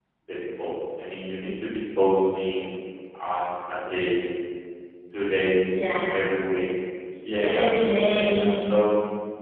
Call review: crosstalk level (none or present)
present